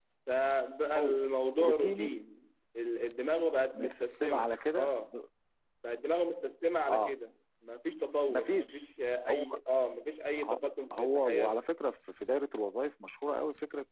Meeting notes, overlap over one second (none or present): present